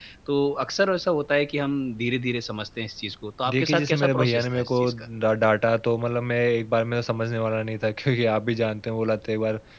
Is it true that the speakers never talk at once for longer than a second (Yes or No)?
No